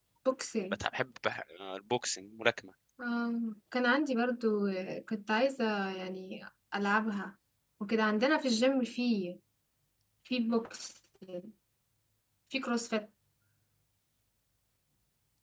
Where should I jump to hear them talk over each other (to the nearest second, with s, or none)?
none